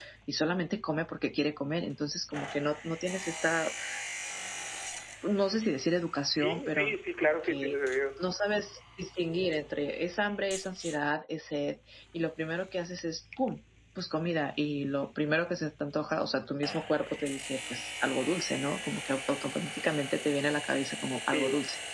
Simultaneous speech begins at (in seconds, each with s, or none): 6.4 s